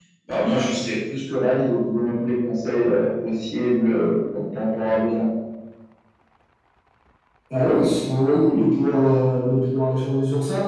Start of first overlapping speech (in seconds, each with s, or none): none